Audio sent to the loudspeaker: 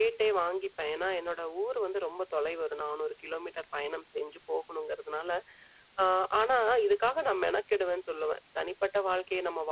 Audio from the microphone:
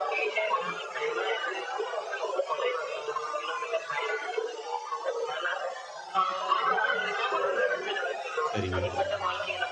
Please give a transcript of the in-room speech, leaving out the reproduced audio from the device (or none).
சரிங்க.